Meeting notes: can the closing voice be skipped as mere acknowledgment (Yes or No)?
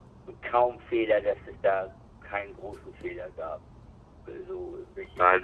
No